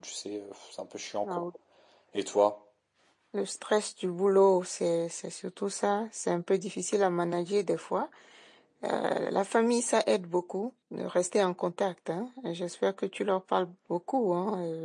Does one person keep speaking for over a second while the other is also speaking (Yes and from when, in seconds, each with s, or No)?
No